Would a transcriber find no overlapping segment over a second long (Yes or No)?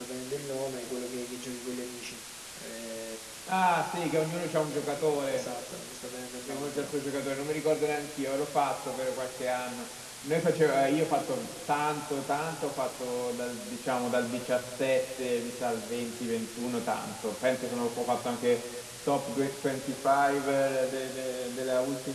Yes